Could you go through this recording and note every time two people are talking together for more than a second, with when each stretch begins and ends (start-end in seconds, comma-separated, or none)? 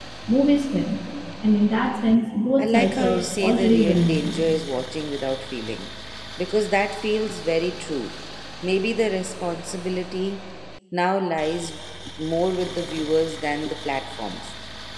2.6-4.3